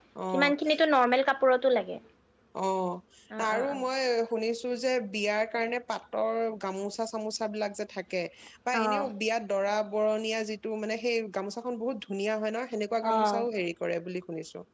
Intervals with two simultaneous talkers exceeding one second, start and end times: none

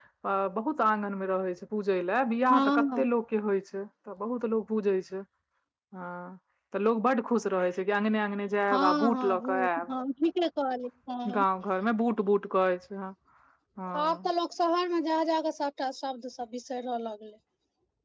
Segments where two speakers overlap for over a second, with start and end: 8.7-9.9

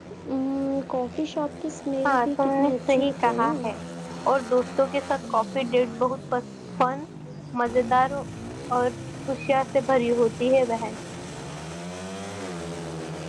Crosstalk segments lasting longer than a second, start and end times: 2.0-3.5

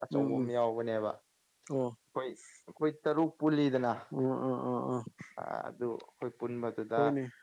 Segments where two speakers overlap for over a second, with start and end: none

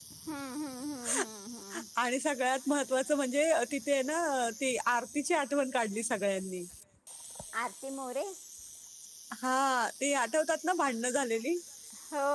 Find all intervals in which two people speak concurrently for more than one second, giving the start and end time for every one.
none

